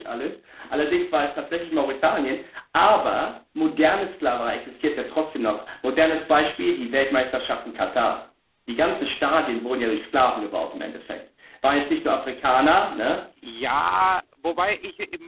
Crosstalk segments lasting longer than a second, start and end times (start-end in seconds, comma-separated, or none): none